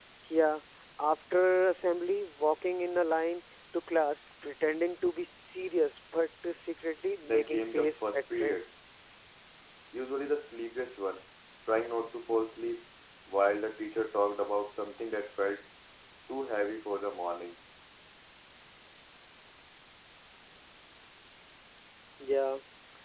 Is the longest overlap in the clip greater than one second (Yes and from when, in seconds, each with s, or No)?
Yes, from 7.2 s